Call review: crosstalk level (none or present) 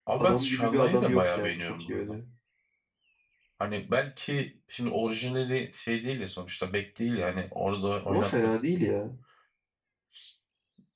present